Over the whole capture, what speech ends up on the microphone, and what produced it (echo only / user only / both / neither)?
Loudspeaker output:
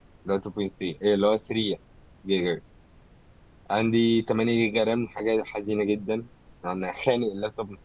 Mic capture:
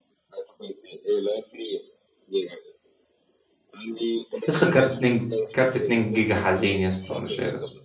both